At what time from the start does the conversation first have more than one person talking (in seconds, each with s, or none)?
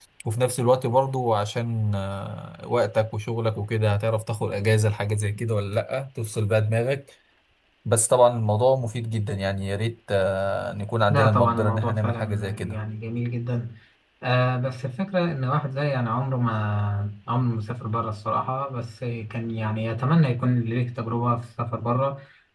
11.1 s